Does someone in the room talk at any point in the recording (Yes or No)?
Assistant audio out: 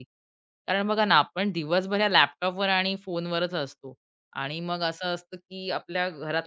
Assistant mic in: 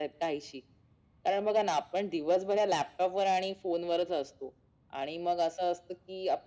No